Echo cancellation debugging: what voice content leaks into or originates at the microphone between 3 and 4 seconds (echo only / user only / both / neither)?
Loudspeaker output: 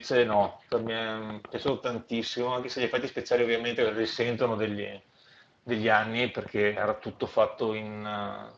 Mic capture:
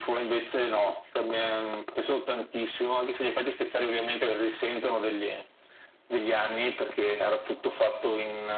echo only